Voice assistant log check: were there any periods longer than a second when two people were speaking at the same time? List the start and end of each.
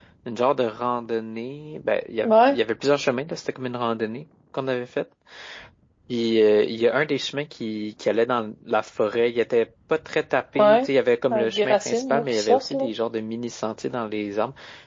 11.3-12.8

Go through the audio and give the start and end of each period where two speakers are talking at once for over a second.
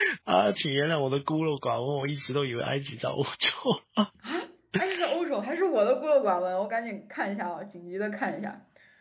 none

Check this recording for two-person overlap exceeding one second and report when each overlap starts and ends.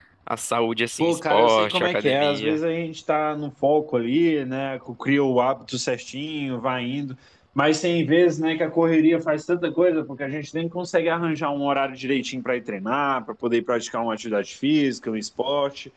1.0-2.6

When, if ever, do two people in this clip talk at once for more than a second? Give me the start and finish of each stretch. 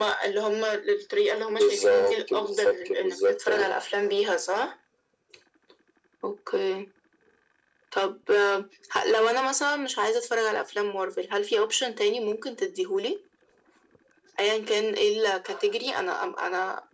1.6-3.7

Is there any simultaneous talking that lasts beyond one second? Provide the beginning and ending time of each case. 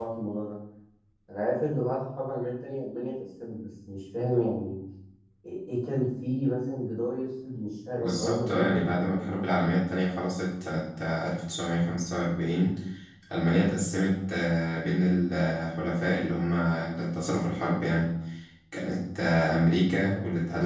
8.0-9.4

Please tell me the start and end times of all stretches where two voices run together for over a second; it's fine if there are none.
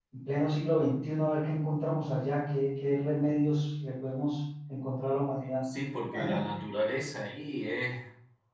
none

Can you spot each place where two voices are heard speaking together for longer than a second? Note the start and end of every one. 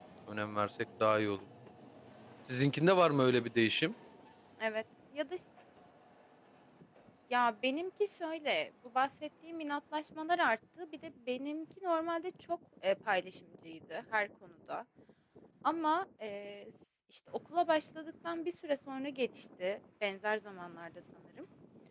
none

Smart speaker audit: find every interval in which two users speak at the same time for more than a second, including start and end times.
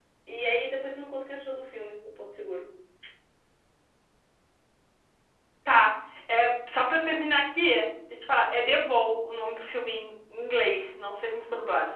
none

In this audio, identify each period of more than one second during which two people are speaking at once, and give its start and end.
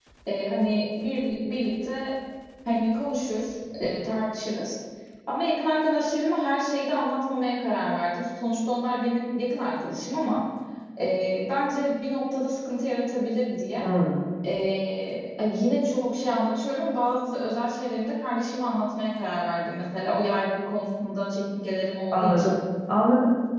none

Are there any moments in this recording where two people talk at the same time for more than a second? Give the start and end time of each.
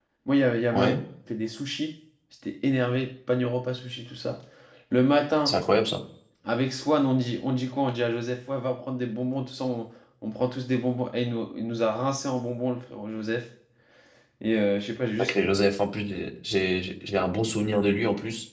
none

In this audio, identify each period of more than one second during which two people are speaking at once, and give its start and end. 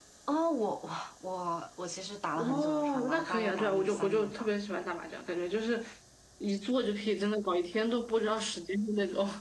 2.4-4.5

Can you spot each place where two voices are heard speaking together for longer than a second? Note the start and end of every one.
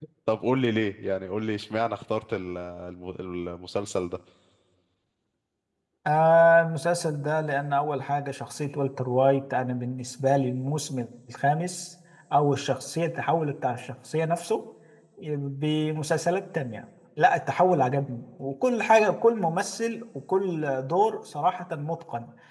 none

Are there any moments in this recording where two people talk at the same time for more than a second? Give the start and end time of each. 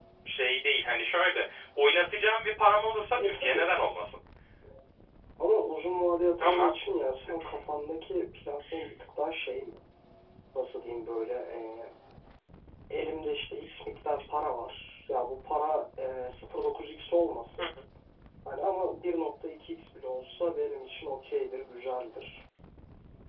none

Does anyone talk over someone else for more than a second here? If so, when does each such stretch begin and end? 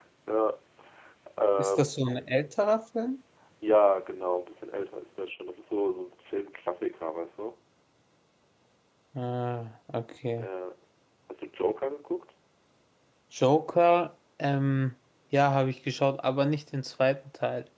none

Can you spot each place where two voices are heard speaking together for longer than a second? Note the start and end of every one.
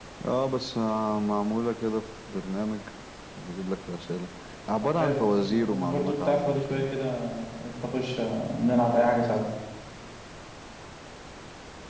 5.0-6.8

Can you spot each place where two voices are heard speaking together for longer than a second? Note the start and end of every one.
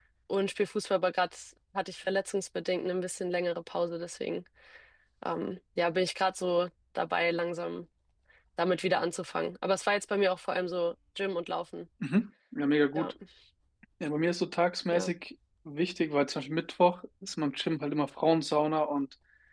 none

